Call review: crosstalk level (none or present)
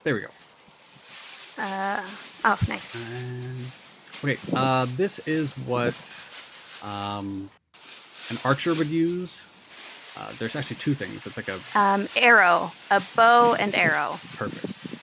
none